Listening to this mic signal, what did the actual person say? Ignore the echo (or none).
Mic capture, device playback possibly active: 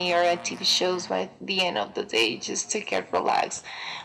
none